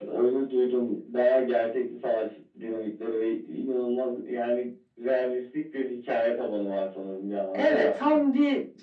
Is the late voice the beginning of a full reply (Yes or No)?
Yes